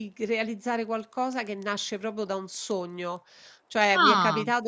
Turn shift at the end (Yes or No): No